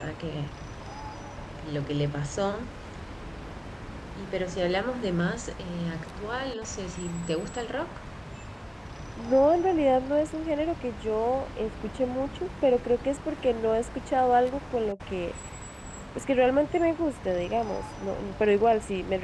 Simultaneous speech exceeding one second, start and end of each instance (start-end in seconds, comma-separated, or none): none